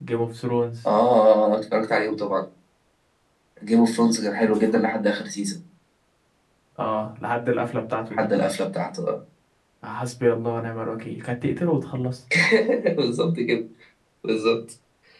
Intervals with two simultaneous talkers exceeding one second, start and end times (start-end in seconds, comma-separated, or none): none